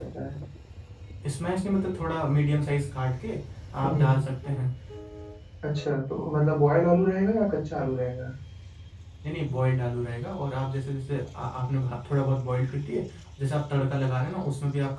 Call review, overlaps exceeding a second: none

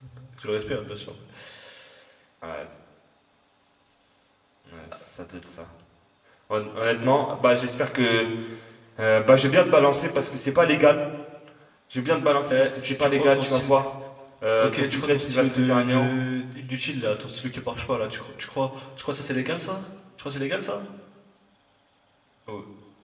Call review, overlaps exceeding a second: present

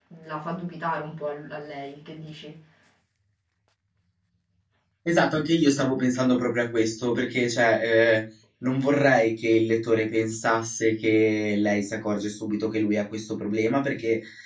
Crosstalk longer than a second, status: none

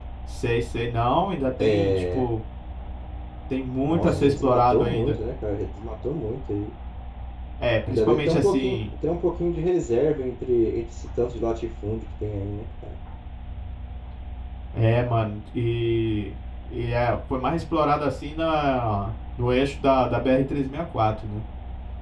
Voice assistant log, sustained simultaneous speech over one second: present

